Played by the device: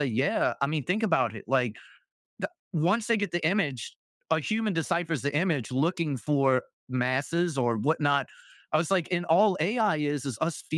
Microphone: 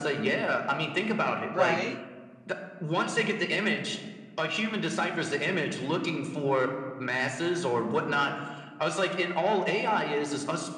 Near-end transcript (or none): right.